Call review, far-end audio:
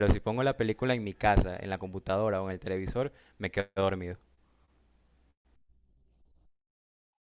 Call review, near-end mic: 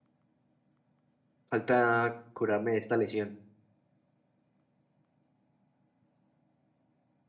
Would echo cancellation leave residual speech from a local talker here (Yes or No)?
Yes